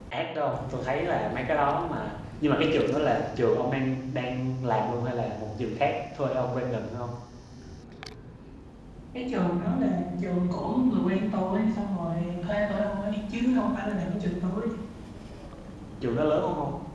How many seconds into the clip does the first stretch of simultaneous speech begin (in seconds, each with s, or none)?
none